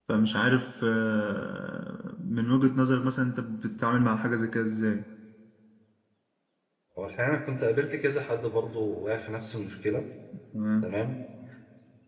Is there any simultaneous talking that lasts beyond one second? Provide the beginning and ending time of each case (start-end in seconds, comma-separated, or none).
none